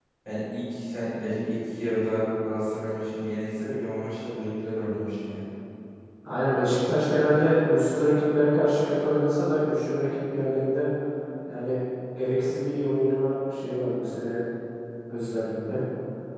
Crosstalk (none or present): none